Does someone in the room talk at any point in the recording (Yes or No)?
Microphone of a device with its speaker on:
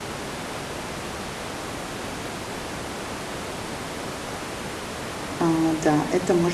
Yes